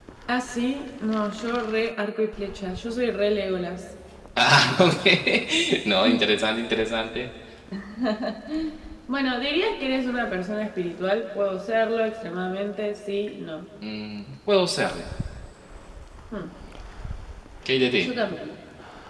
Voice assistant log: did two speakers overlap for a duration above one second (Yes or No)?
No